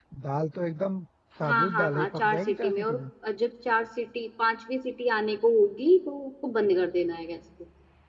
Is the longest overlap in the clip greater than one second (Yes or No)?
Yes